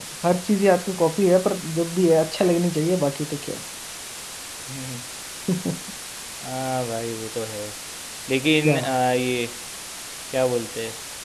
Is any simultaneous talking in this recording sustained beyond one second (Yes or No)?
No